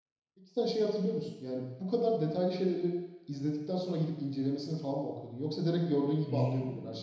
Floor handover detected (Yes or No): Yes